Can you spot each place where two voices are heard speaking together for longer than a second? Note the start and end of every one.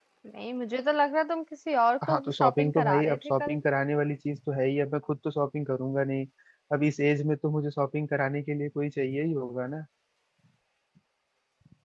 2.1-3.6

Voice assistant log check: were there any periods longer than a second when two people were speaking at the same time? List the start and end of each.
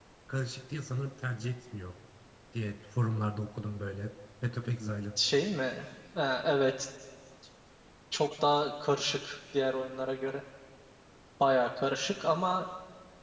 none

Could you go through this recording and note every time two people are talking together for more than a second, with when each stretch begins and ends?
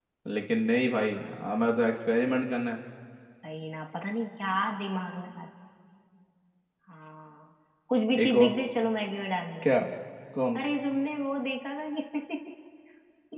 none

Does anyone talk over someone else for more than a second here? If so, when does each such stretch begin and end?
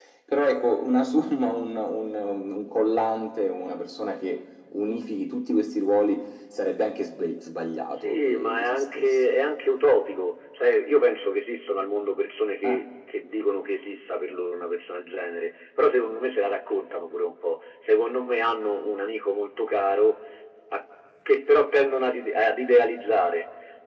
8.0-9.4

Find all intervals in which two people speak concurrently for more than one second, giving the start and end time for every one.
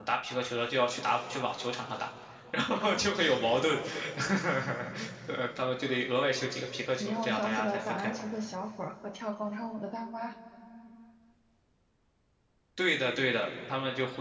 7.0-8.2

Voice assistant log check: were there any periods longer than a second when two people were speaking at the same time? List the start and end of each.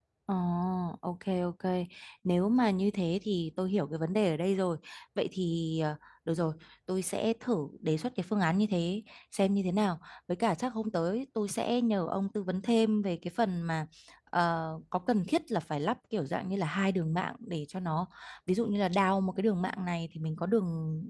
none

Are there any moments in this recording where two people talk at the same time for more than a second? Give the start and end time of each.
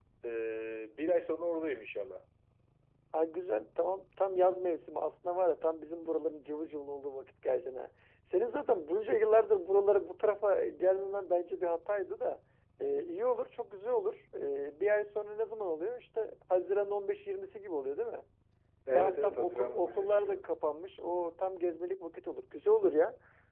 18.9-20.4

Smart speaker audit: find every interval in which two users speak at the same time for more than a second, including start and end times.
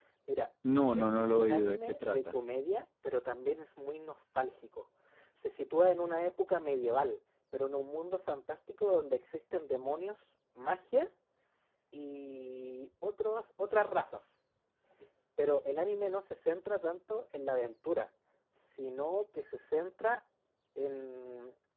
0.9-2.4

